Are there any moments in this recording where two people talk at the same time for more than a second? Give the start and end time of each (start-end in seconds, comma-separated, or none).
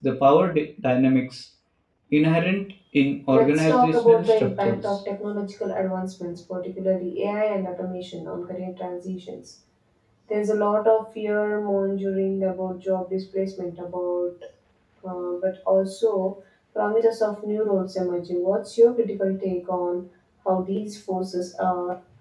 3.3-5.0